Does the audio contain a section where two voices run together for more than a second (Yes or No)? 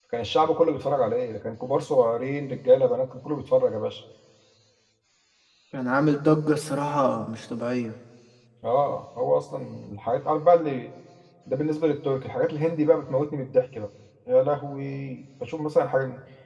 No